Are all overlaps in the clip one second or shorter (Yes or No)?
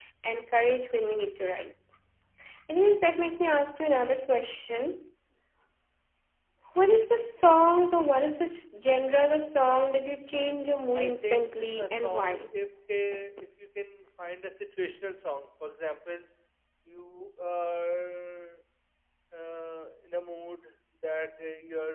No